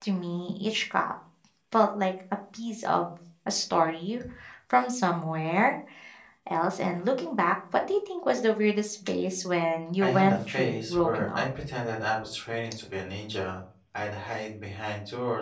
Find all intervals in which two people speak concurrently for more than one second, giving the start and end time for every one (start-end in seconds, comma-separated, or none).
10.0-11.4